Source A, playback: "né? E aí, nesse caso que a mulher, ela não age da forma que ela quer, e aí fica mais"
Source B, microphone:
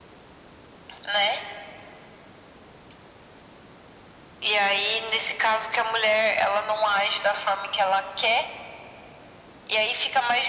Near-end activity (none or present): none